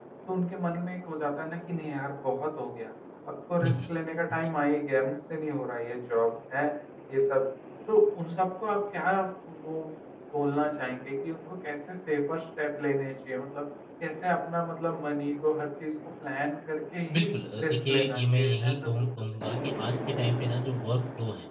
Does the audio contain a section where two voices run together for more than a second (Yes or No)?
Yes